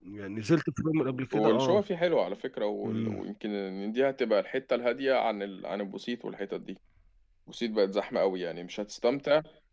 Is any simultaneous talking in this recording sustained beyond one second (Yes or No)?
No